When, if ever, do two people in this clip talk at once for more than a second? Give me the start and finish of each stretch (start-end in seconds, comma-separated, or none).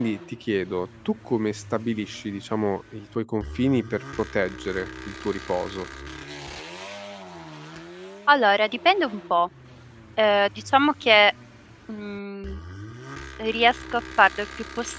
none